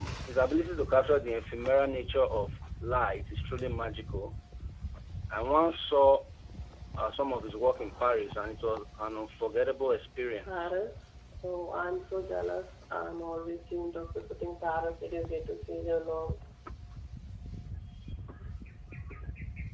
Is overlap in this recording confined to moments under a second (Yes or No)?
Yes